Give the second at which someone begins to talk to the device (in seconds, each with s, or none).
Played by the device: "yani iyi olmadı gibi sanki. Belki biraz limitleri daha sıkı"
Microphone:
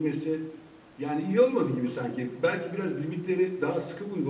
none